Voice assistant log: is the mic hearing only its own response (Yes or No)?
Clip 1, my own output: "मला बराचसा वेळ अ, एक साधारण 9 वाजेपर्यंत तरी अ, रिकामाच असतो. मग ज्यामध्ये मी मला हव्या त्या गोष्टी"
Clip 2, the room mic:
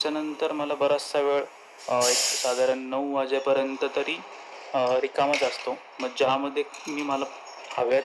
Yes